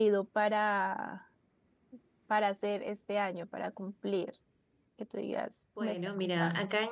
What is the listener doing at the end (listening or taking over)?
taking over